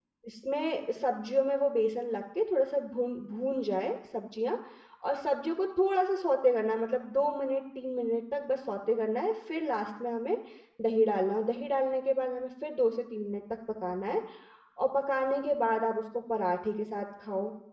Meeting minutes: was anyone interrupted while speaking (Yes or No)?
No